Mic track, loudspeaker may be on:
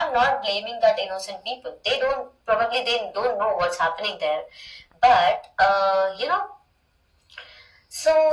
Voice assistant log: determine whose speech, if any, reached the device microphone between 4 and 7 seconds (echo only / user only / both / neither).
echo only